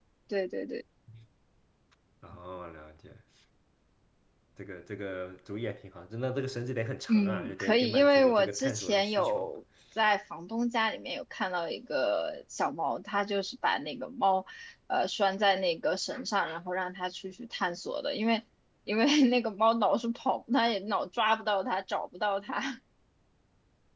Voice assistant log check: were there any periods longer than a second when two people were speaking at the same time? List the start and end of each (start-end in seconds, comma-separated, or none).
7.1-9.5